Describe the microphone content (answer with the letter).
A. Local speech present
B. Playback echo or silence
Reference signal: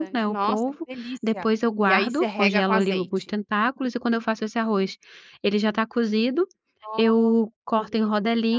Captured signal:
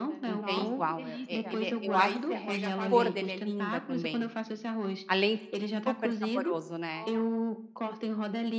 A